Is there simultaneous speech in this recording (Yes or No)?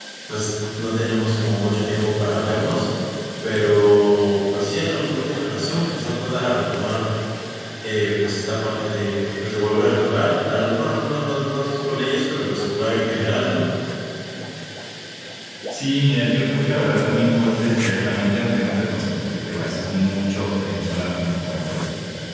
No